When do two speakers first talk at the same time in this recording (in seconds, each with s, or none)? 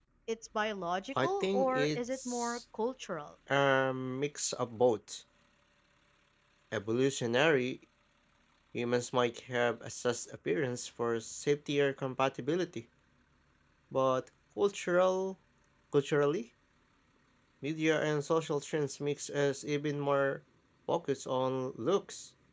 1.2 s